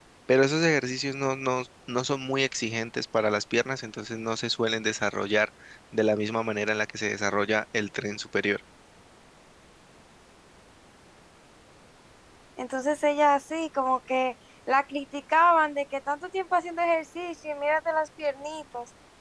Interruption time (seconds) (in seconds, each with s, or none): none